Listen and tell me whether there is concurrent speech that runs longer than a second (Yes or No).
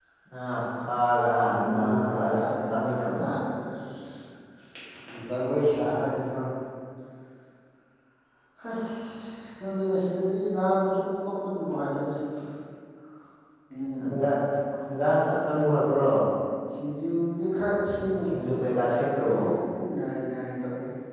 Yes